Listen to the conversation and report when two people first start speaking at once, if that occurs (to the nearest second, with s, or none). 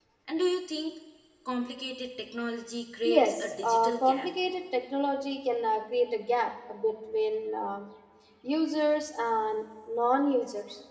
3 s